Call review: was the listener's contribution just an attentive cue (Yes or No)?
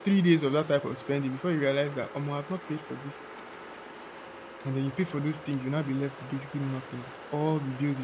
Yes